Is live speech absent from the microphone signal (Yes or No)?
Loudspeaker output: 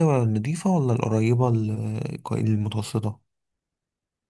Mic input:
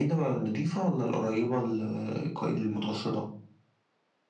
Yes